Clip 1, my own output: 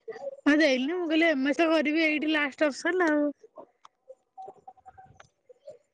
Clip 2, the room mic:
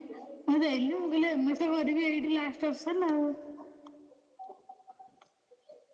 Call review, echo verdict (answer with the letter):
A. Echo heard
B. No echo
A